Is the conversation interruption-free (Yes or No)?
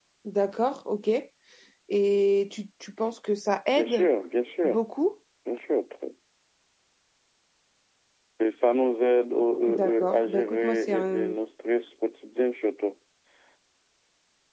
No